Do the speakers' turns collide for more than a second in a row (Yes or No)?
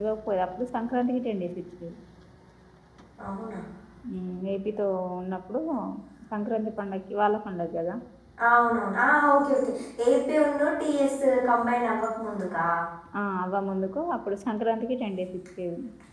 No